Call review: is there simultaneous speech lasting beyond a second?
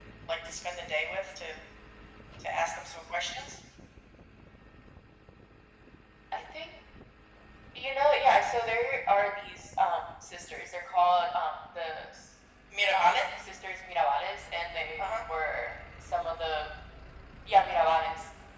No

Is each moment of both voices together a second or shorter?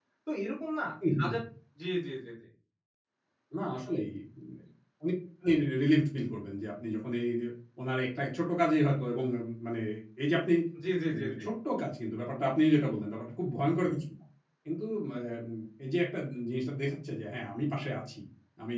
Yes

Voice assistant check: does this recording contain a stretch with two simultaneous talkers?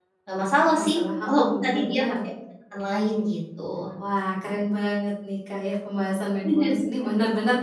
Yes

